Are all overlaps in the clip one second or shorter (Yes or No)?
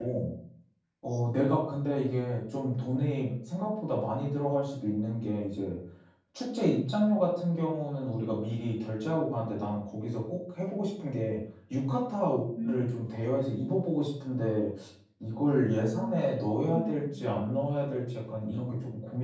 No